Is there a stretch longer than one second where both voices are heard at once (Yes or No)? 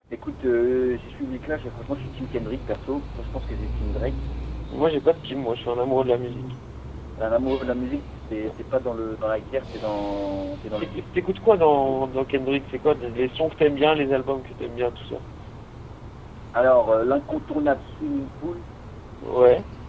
No